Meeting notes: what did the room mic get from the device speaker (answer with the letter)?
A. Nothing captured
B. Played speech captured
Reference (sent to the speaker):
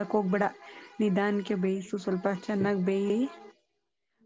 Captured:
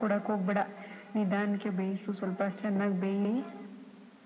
B